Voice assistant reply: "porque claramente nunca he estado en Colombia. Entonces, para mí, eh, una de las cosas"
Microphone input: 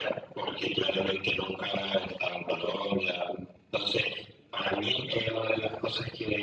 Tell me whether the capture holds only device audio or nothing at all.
Yes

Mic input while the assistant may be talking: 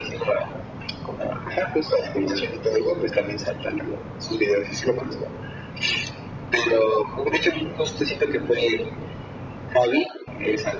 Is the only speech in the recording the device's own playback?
Yes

